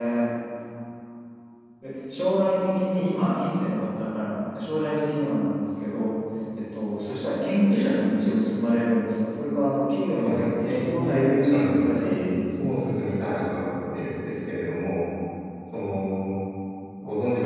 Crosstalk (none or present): present